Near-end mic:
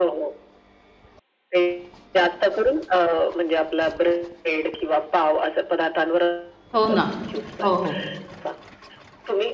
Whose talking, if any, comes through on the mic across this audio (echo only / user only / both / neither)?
both